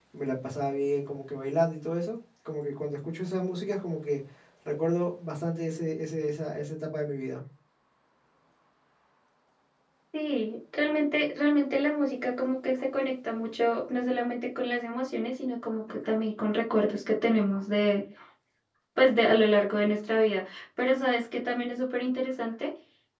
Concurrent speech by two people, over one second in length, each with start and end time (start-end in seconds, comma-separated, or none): none